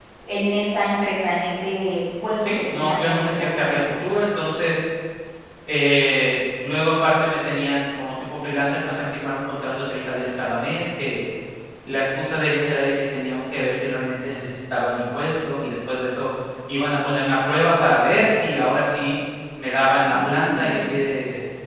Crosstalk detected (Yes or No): Yes